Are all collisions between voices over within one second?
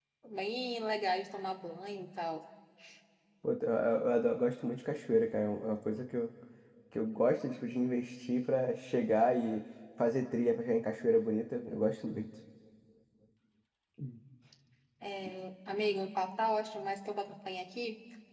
Yes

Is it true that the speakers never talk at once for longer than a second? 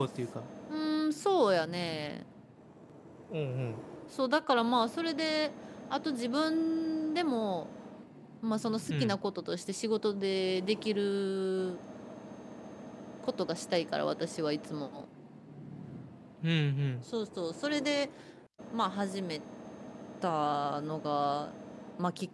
Yes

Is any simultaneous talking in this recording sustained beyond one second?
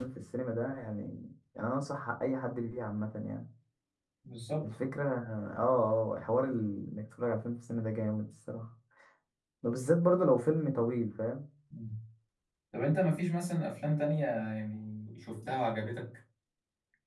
No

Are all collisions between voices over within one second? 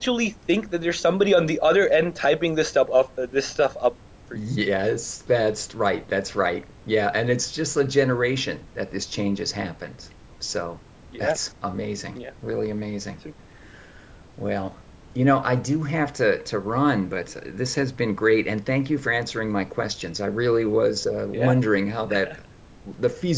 Yes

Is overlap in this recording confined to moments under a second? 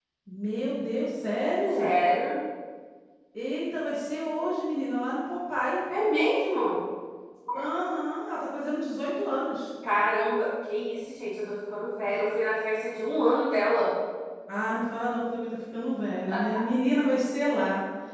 Yes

